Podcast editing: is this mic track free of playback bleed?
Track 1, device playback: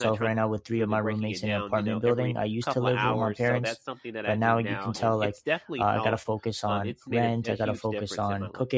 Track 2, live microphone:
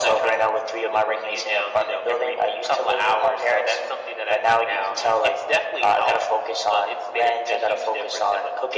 No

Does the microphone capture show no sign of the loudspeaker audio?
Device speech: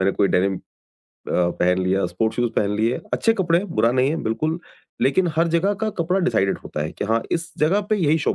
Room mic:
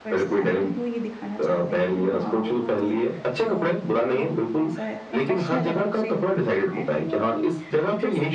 No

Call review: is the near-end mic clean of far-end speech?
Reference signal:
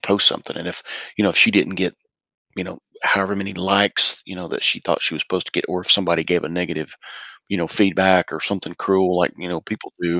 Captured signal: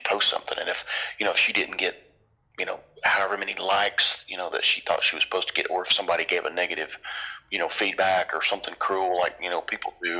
No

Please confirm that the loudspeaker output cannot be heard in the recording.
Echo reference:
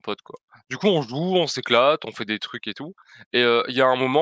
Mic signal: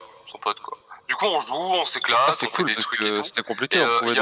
No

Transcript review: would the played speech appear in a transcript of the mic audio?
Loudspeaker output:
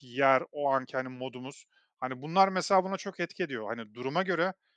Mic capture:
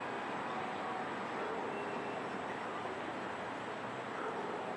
No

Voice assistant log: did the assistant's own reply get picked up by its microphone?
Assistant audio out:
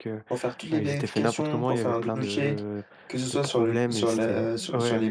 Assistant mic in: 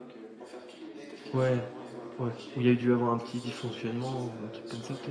Yes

